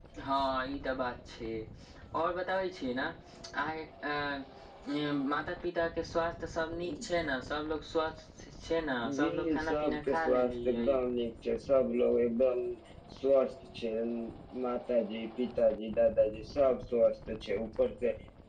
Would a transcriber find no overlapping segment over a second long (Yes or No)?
No